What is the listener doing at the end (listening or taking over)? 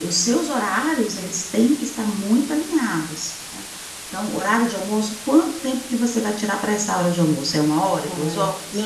taking over